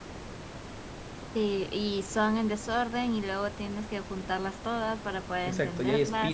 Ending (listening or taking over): taking over